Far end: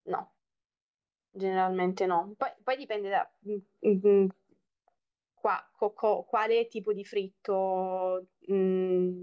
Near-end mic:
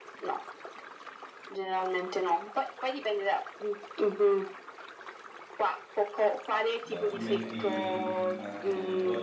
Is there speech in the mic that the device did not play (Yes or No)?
Yes